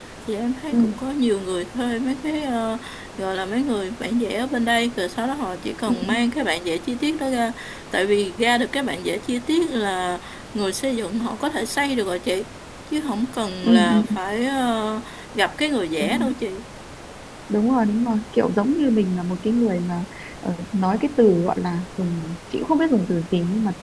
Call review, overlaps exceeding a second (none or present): none